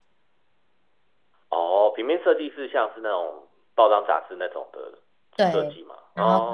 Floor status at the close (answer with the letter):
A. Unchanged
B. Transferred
B